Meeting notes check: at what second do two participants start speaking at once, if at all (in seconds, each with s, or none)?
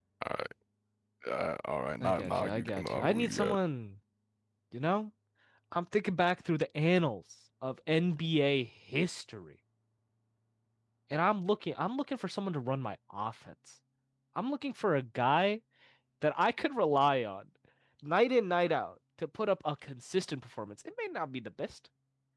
2.0 s